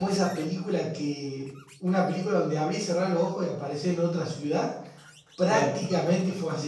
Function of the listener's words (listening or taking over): listening